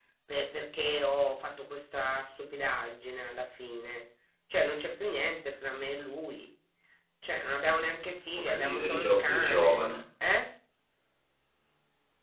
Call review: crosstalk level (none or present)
present